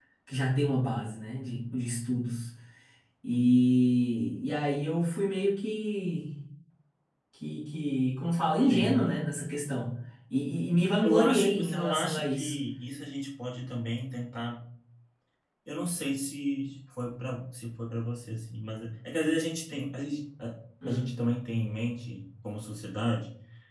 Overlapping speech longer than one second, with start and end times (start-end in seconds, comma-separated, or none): 11.0-12.5